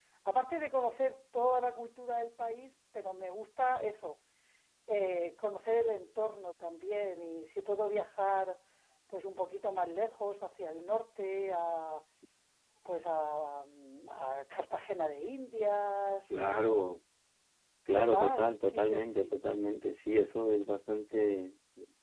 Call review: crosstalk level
present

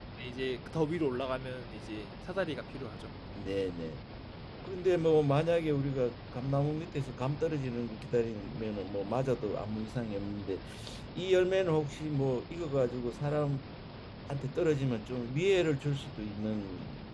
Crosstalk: none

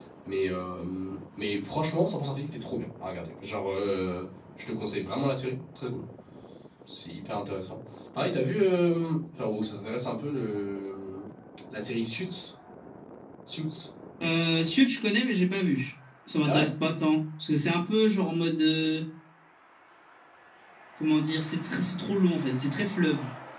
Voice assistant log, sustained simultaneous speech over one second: none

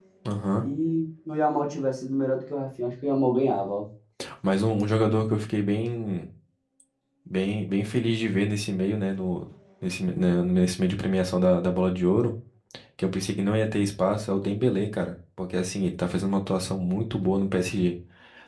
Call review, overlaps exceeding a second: none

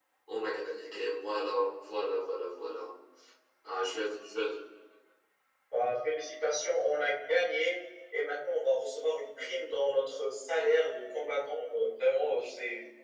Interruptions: none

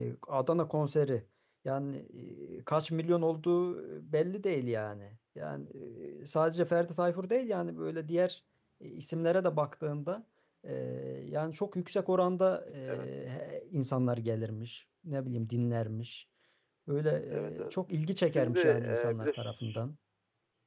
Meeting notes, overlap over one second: present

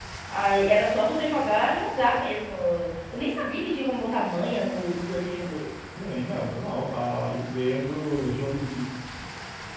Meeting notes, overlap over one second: none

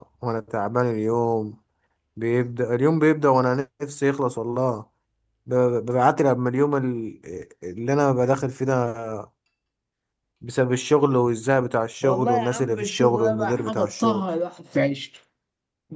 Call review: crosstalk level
present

